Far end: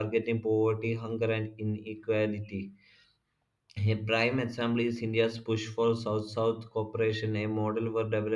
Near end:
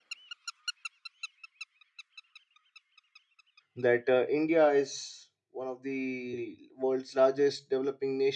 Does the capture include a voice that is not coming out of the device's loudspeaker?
Yes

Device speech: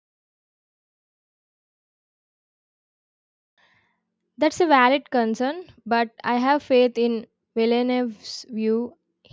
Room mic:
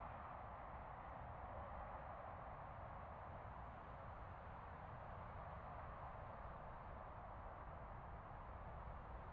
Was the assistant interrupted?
No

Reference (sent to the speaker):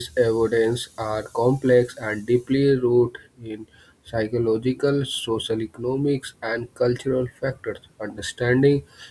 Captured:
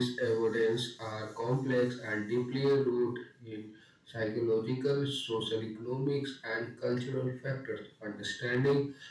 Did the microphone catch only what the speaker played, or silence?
Yes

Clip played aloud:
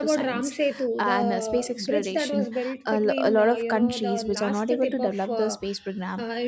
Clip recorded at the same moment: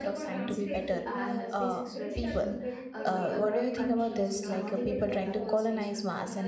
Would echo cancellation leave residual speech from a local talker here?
Yes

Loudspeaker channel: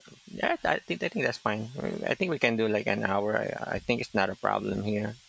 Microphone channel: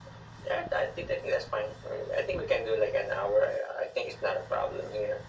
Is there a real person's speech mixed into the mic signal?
No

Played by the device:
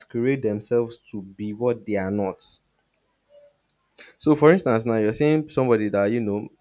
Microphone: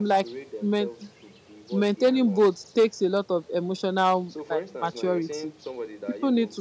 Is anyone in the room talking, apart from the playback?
Yes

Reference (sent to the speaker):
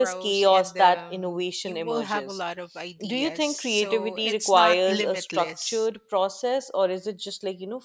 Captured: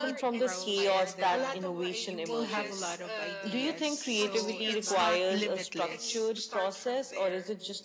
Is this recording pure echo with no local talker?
No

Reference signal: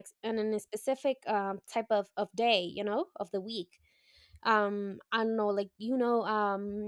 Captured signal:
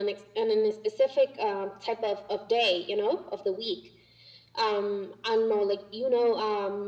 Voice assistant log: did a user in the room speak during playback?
No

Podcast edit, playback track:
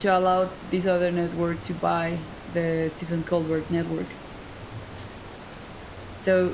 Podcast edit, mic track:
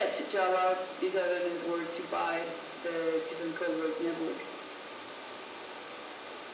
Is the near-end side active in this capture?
No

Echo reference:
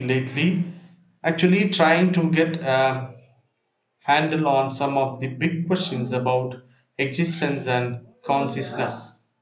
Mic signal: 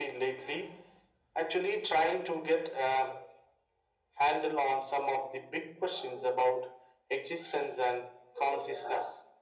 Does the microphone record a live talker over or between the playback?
No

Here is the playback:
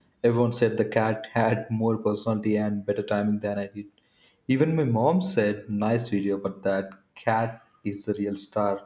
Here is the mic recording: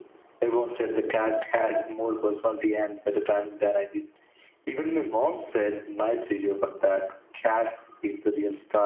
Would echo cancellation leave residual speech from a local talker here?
No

